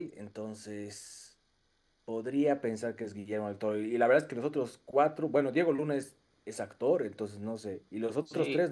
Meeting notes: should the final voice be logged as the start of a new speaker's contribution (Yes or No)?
Yes